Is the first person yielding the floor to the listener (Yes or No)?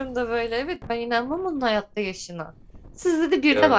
No